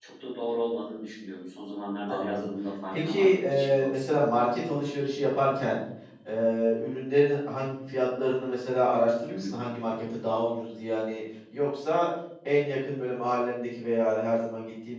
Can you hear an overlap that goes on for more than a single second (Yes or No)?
Yes